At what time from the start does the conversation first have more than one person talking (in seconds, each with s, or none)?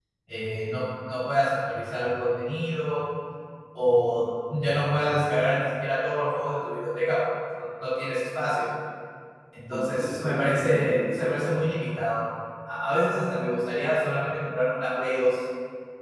9.7 s